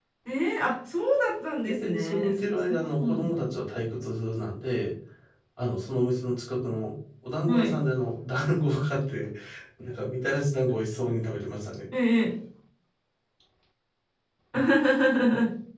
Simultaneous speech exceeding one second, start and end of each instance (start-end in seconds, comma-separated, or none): 1.6-3.5